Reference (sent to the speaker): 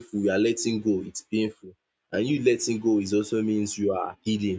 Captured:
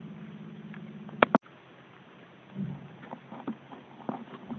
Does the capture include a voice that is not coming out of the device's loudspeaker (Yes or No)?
No